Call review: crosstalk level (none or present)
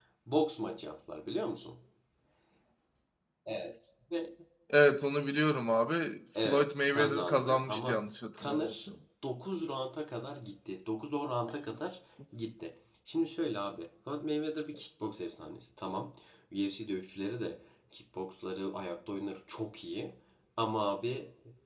present